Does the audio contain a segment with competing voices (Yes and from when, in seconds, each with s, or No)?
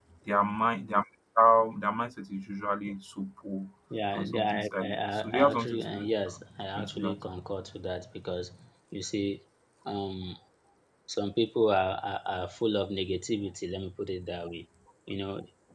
Yes, from 4.2 s